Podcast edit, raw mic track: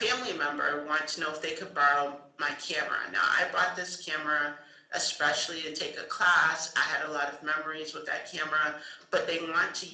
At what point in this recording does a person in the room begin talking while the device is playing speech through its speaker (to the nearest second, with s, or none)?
none